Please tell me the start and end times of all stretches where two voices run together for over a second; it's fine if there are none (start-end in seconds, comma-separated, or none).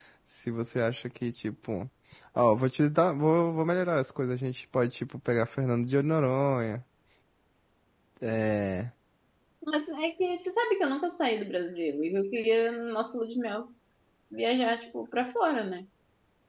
none